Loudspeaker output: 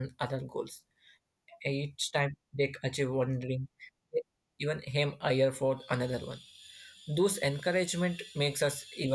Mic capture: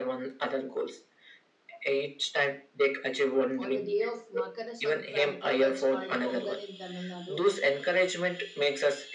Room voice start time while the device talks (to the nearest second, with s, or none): 4 s